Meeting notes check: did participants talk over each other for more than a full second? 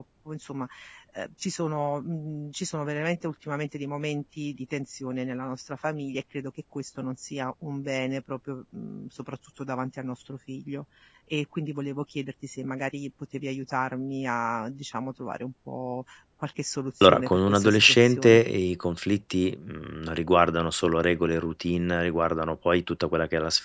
Yes, from 17.0 s

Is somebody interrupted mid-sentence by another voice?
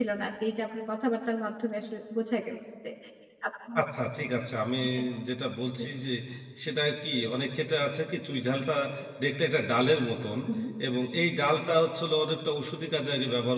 No

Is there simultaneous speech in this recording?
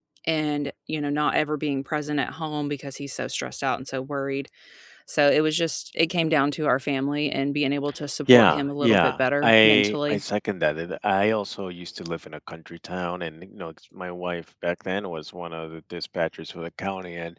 Yes, from 8.3 s

